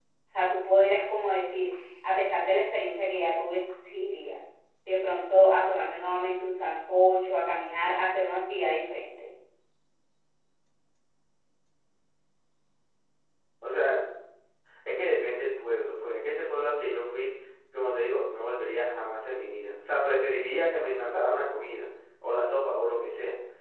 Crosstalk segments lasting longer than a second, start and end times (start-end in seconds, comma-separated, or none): none